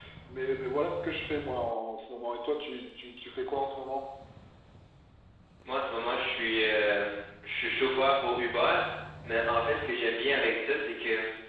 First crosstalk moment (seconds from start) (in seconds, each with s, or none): none